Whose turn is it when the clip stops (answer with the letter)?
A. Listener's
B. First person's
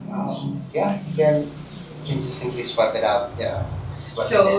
A